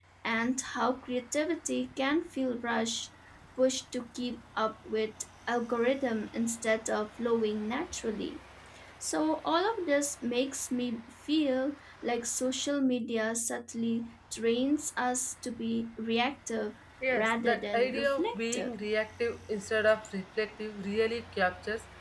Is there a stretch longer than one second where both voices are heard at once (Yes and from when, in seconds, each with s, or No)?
Yes, from 17.0 s